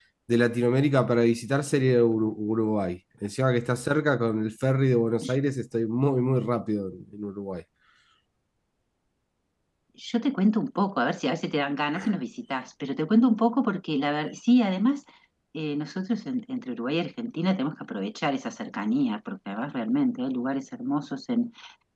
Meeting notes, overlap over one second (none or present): none